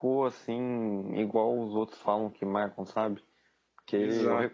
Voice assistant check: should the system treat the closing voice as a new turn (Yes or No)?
No